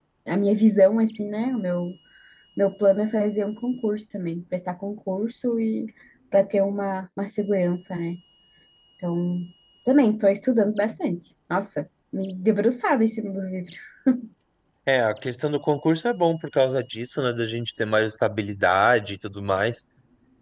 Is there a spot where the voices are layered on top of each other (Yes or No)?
No